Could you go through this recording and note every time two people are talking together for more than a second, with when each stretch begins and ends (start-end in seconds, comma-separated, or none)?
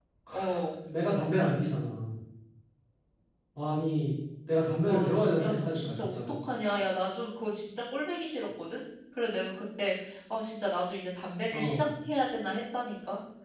4.9-6.2